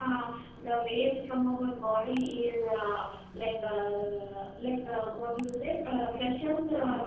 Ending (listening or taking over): listening